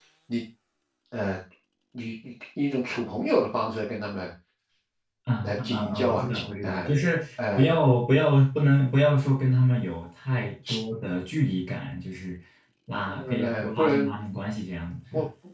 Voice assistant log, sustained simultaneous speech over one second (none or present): present